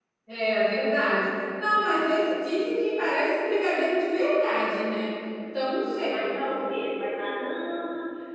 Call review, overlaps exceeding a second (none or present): none